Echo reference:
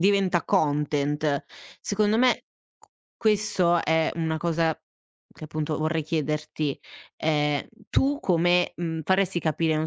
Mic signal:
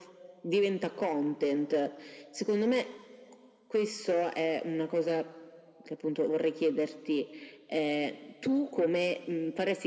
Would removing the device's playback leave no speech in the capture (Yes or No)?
Yes